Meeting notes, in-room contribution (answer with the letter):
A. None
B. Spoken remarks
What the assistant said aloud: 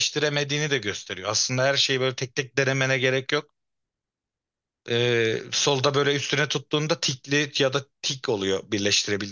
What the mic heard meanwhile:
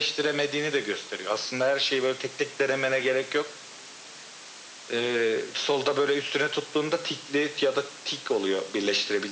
A